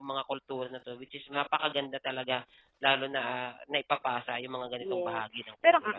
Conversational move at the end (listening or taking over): taking over